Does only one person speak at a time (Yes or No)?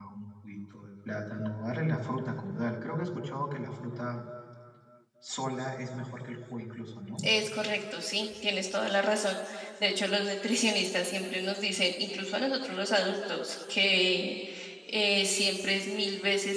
Yes